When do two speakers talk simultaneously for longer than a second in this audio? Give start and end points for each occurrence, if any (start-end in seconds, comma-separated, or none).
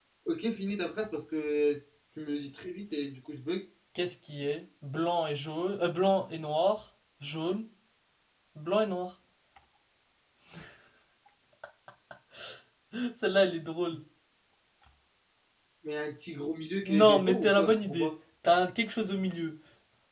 16.8-18.1